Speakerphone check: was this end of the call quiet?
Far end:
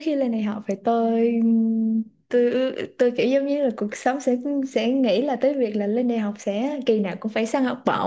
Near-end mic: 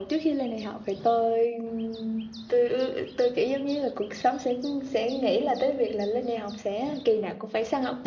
Yes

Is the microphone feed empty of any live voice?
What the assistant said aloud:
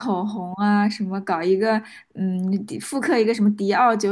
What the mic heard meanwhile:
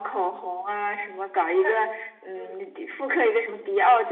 No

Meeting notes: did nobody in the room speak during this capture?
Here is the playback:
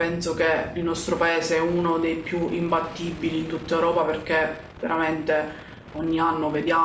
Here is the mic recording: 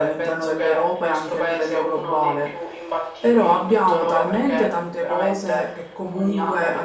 No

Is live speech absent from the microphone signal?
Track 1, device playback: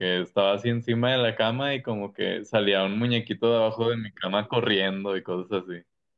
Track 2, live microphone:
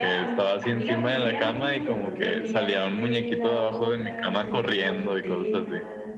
No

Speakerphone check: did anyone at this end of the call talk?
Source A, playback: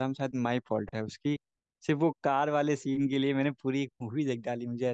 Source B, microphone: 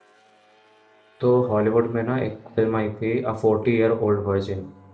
Yes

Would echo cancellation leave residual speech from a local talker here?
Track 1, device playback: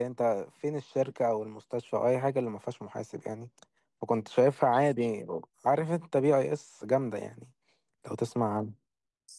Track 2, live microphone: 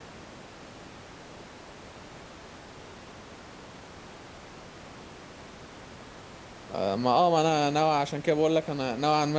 Yes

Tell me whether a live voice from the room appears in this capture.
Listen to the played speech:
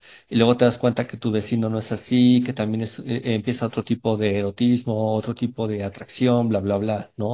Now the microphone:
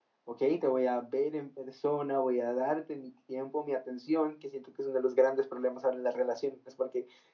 Yes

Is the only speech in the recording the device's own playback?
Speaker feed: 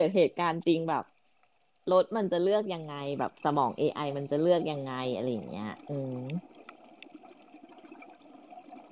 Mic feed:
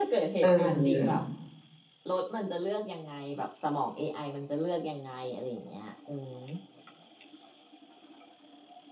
No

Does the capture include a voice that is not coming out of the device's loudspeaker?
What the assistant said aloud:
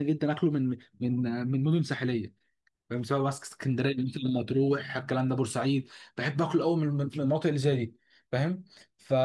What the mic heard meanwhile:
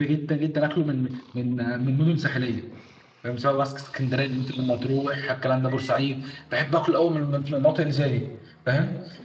No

